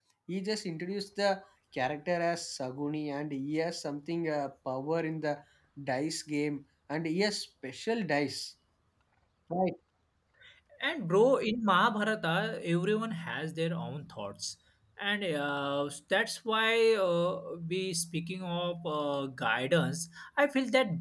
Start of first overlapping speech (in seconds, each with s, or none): none